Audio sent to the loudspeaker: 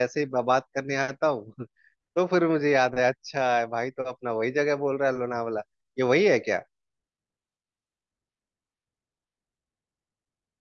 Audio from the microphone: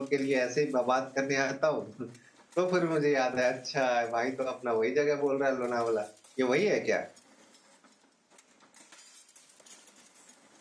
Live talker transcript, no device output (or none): none